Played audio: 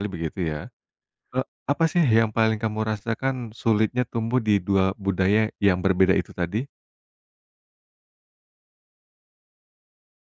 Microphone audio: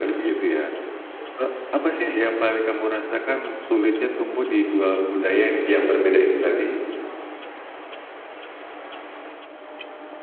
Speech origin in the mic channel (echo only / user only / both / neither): echo only